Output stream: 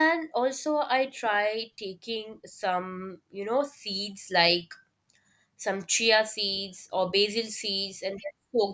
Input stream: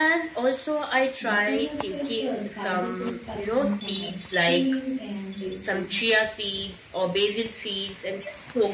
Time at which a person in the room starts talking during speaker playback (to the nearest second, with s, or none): 1 s